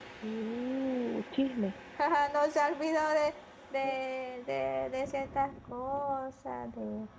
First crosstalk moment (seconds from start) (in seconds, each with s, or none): none